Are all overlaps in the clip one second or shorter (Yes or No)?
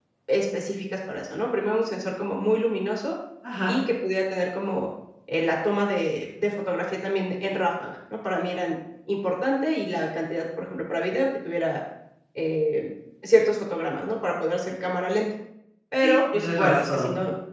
No